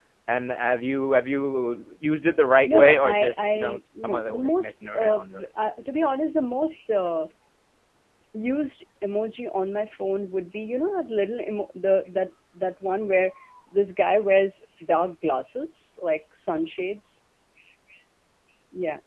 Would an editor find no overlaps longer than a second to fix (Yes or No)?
No